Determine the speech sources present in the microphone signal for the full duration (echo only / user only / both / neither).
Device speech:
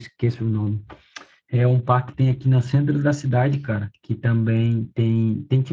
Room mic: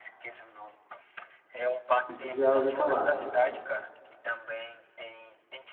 both